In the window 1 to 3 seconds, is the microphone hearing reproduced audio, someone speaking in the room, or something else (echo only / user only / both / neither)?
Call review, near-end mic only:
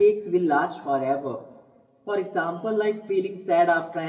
user only